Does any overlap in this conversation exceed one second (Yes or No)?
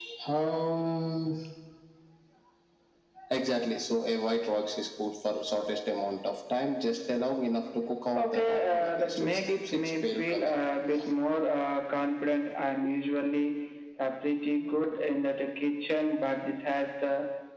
Yes